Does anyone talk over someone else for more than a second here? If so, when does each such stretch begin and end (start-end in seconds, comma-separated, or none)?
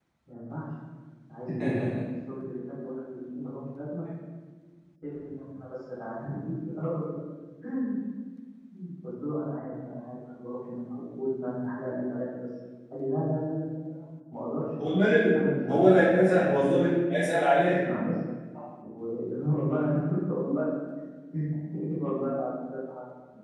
15.3-16.8